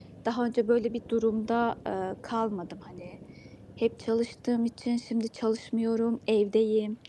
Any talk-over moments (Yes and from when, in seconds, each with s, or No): No